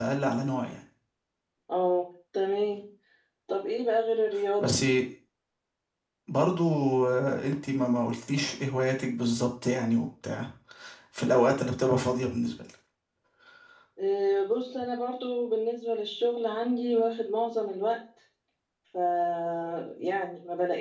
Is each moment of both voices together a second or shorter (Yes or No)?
Yes